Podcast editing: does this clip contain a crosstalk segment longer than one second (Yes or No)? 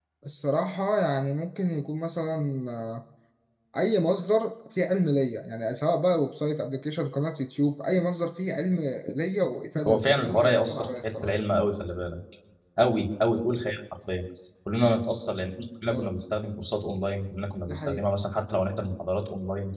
Yes